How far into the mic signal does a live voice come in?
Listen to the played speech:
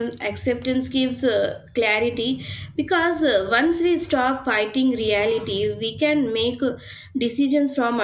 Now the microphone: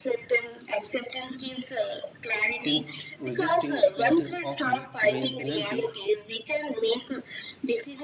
2.5 s

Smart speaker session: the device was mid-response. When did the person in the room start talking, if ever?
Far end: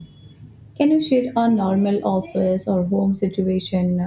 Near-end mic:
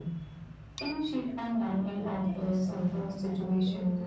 1.8 s

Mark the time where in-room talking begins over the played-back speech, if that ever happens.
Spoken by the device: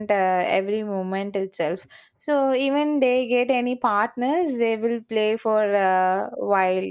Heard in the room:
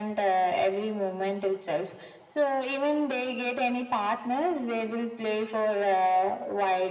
none

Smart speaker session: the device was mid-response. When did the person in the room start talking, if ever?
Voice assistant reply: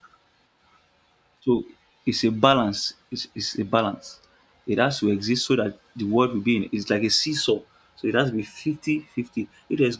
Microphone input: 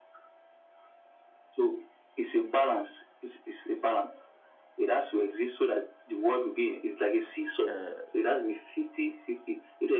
7.7 s

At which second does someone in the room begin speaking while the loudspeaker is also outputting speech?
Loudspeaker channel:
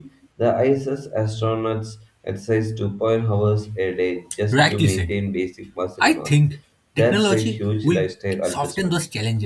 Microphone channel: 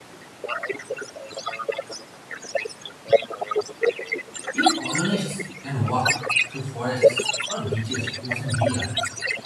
4.5 s

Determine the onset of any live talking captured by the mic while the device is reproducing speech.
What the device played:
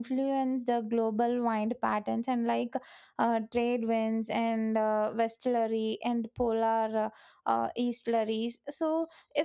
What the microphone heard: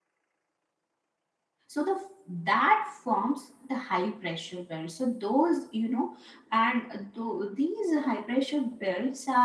1.7 s

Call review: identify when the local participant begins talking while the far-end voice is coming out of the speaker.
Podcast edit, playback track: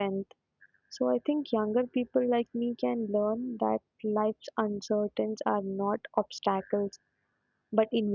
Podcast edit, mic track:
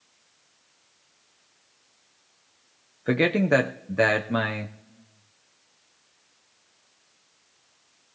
3.0 s

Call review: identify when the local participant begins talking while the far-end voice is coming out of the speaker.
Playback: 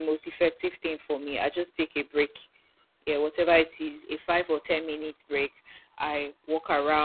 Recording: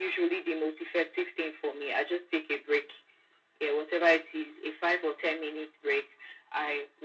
none

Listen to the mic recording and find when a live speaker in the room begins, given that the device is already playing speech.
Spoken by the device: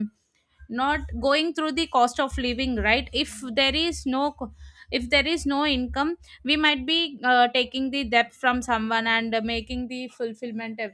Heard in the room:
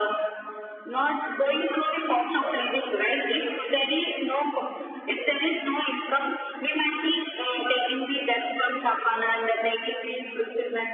none

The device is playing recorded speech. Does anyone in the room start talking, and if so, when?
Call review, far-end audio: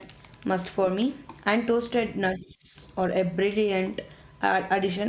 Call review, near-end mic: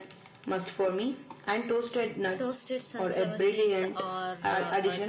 2.4 s

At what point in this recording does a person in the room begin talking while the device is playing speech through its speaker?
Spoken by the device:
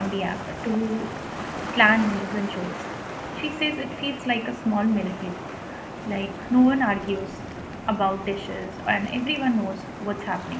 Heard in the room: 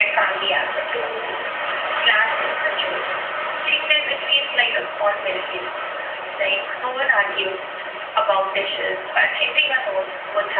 none

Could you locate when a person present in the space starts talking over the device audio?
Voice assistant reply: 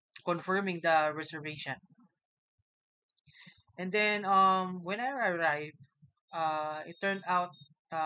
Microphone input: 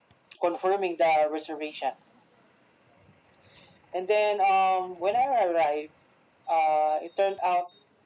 none

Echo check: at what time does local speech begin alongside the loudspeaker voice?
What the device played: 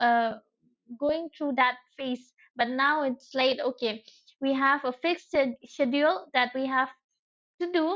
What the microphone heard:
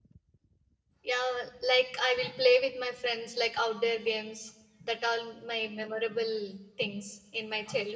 1.0 s

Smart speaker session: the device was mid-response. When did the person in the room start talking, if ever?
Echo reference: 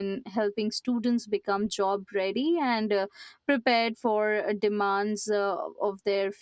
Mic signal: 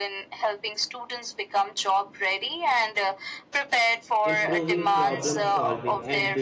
4.2 s

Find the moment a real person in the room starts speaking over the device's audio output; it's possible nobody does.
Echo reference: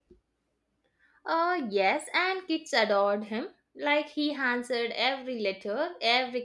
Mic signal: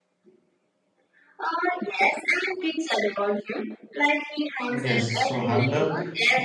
4.8 s

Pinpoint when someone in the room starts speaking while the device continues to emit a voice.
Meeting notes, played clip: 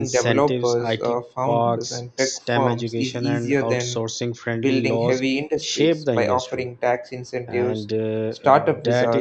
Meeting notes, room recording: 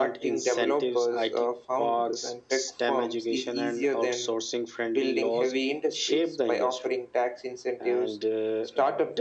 none

